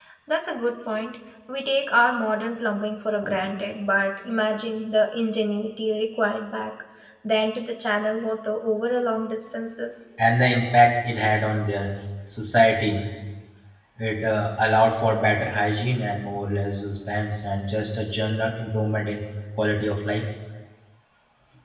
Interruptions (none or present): none